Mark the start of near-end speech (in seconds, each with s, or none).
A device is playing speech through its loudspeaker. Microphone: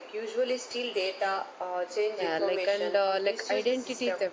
2.2 s